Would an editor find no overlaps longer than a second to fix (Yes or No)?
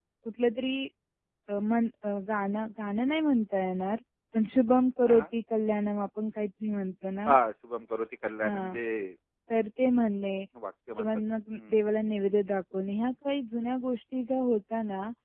Yes